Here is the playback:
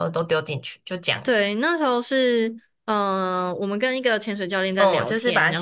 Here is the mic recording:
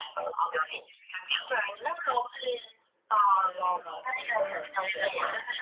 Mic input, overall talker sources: both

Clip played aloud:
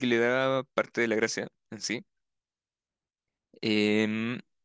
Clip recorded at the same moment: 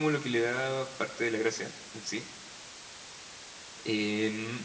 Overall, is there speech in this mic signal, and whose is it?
echo only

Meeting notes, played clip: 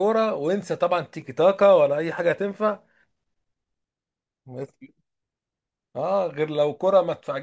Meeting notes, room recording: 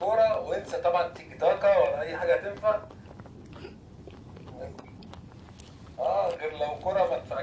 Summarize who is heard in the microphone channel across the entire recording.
echo only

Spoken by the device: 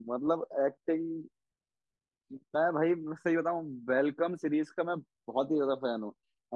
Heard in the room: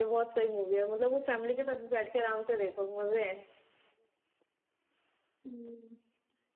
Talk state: user only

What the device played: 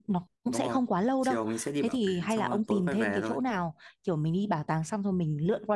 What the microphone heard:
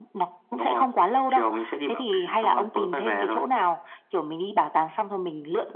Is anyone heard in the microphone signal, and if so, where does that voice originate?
echo only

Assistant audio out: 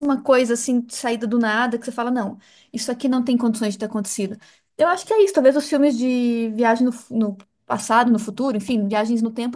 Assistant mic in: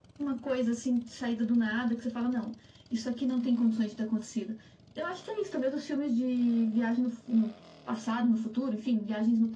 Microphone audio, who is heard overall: echo only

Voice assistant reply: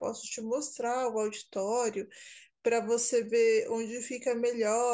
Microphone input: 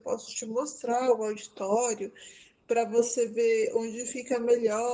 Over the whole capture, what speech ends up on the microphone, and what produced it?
echo only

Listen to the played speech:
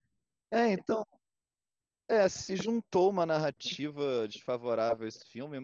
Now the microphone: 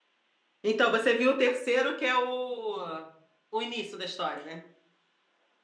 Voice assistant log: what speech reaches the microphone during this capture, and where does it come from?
user only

